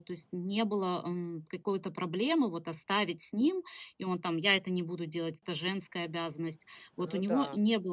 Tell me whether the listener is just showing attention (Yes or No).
Yes